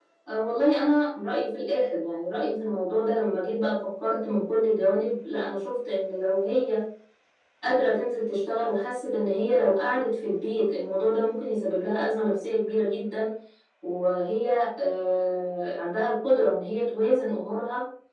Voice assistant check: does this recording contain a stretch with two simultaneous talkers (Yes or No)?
No